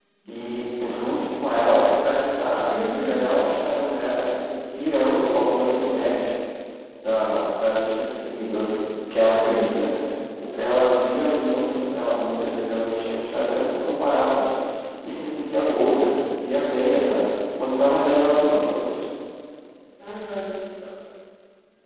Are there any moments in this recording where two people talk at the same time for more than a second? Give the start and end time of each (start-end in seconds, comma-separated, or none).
none